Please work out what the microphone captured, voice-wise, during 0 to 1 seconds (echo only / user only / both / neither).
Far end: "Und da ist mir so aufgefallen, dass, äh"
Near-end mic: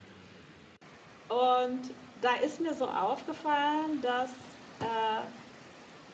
neither